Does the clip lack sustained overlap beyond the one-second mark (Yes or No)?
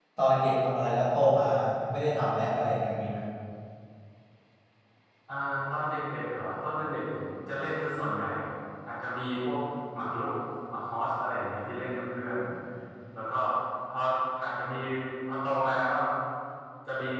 Yes